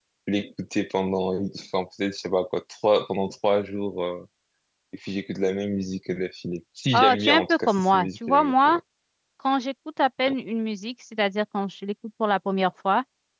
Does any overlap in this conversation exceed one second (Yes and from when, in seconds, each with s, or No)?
Yes, from 6.9 s